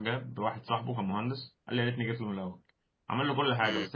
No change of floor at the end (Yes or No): Yes